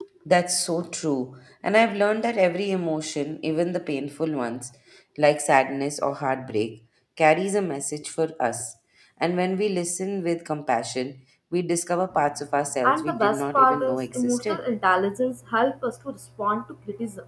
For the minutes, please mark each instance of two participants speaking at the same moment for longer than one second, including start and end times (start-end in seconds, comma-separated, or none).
12.8-14.6